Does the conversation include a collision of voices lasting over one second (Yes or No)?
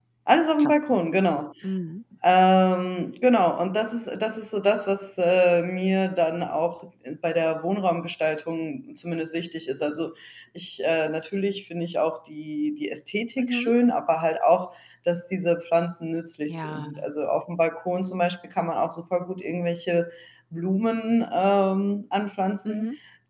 No